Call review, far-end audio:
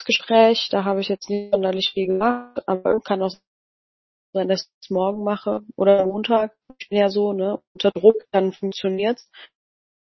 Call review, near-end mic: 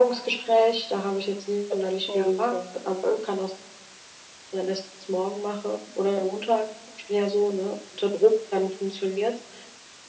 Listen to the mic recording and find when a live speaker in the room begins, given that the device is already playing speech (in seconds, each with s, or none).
2.1 s